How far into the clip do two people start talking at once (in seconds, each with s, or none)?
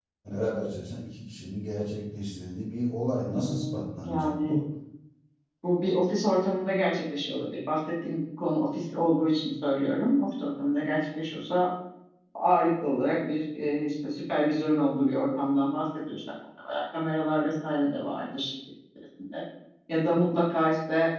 3.2 s